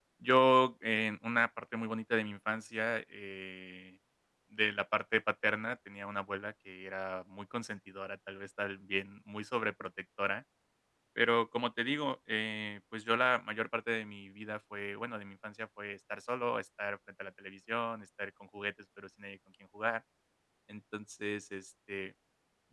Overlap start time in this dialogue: none

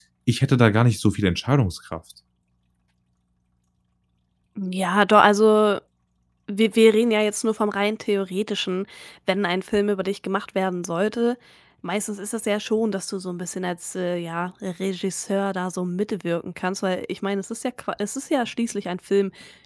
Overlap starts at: none

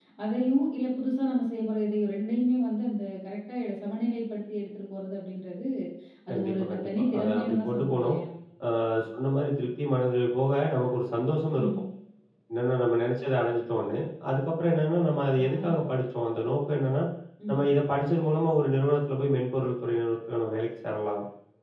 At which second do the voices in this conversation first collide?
6.3 s

